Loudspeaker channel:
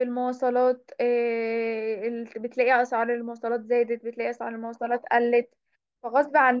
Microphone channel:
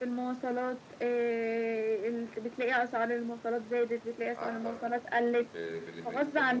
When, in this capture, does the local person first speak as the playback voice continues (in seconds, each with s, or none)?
4.3 s